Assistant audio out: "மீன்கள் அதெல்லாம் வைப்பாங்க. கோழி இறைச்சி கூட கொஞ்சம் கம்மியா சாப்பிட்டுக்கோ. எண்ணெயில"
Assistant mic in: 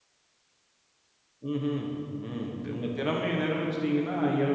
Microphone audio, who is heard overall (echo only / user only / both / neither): user only